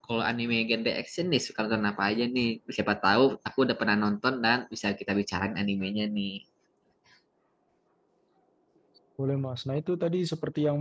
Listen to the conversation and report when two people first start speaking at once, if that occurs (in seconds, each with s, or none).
none